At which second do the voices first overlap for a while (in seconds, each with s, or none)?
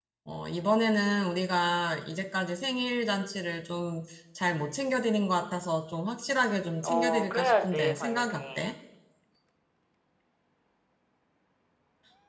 6.8 s